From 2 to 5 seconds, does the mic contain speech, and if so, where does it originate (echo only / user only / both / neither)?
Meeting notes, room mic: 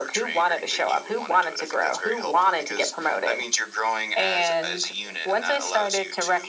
echo only